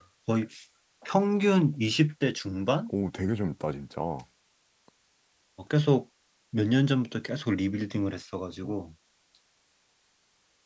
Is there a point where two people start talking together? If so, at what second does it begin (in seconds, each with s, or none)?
none